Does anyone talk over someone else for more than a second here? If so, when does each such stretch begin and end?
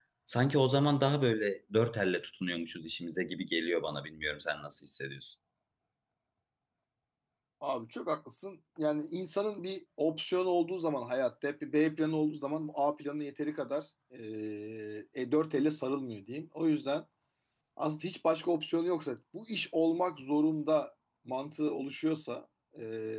none

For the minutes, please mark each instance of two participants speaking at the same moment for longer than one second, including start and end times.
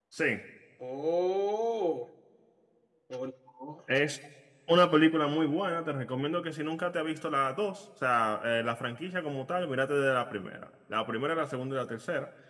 none

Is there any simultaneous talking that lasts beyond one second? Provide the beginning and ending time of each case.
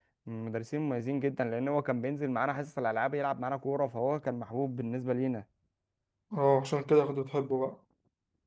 none

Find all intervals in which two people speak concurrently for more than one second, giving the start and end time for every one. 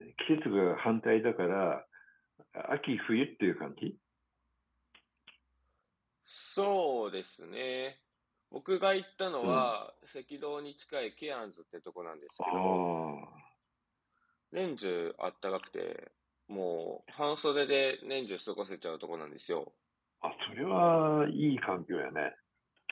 none

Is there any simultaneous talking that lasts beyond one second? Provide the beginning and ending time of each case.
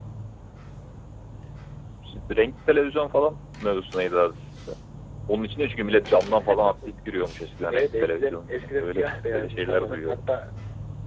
7.7-10.2

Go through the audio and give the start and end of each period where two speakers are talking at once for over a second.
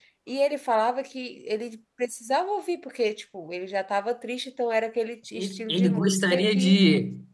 5.3-6.8

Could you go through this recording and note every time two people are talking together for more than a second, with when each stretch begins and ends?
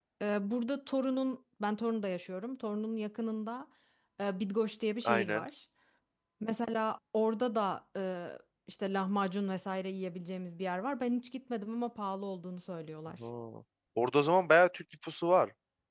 none

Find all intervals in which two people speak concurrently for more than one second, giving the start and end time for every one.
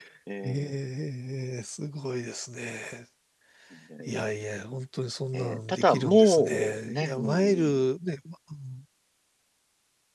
5.3-7.7

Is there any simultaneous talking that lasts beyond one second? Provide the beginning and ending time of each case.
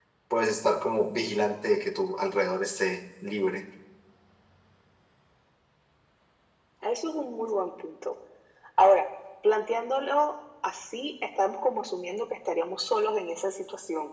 none

